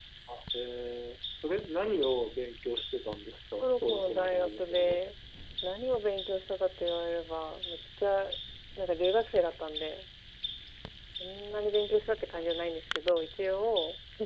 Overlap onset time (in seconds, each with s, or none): 3.6 s